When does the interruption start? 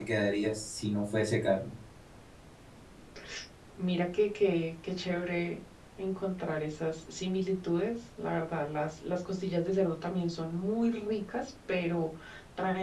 none

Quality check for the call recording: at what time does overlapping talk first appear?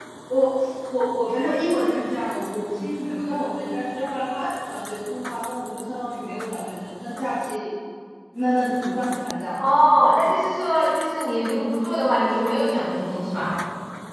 none

